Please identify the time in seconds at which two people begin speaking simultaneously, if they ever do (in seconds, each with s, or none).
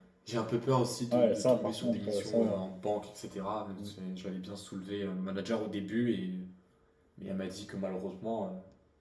1.1 s